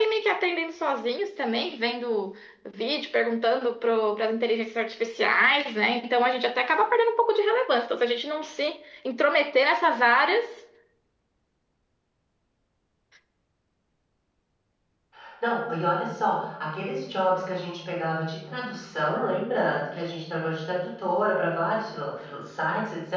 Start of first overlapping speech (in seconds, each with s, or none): none